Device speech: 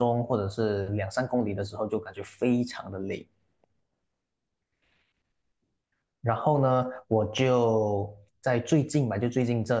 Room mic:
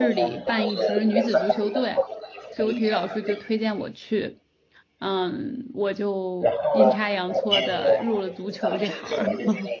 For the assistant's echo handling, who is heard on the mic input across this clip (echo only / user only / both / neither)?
both